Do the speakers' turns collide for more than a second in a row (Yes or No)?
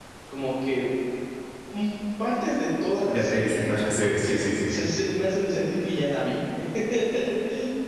No